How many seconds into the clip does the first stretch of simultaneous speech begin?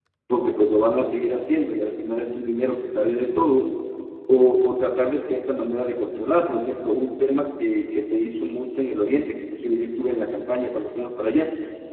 none

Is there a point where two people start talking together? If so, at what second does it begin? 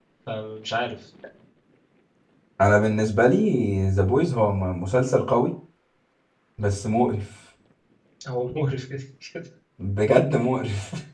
none

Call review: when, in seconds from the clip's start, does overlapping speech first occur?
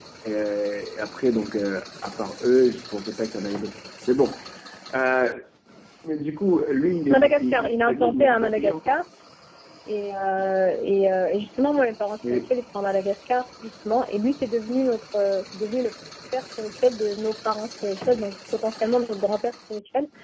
7.1 s

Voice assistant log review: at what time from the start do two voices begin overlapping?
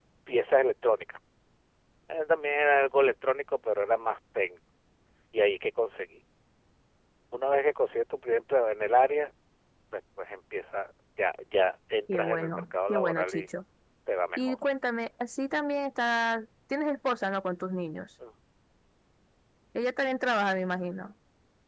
12.1 s

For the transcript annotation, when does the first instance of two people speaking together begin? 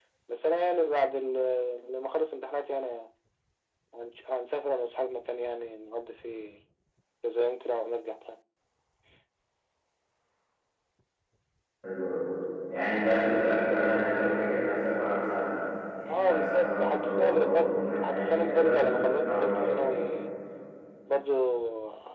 16.1 s

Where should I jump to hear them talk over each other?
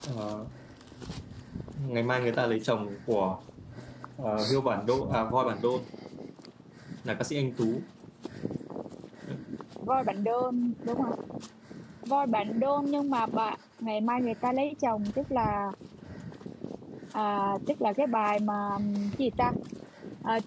none

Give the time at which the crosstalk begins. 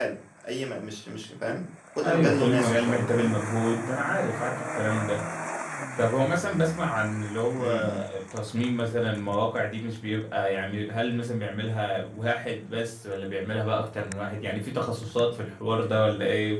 2.0 s

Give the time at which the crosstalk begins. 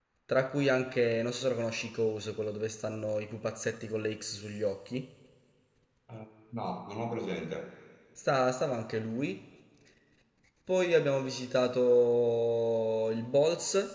none

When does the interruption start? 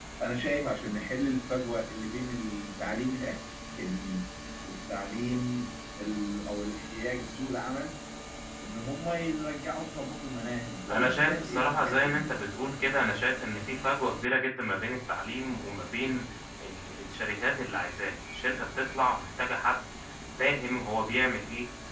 10.9 s

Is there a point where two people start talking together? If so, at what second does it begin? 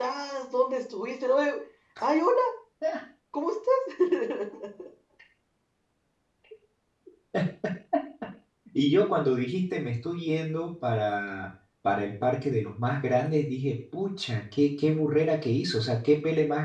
none

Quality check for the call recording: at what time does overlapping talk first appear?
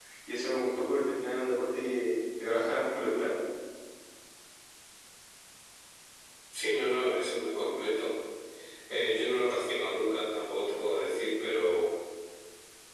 none

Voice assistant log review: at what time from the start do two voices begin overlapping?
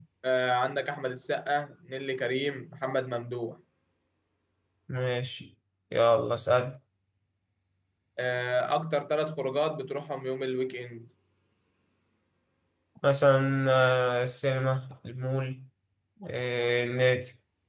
none

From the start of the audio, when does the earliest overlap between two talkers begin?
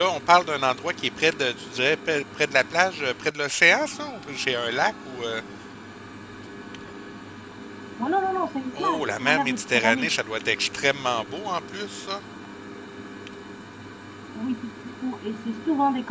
8.8 s

